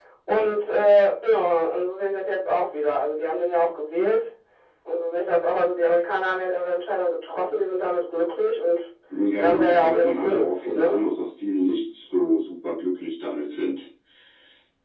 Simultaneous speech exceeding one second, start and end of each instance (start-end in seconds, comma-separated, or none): 9.4-11.0